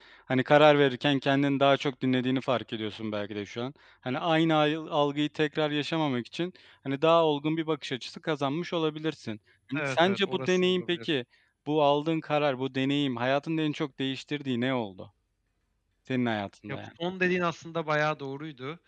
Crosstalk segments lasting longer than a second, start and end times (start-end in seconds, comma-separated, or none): 9.8-11.1